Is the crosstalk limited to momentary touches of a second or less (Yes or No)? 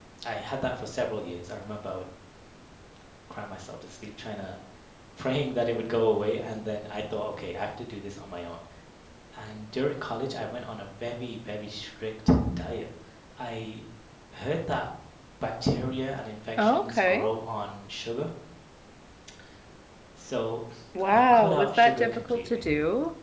No